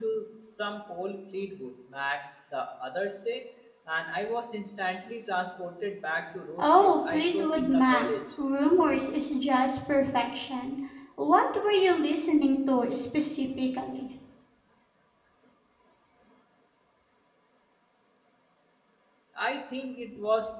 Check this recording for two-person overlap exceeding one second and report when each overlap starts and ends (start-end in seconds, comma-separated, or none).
6.6-8.1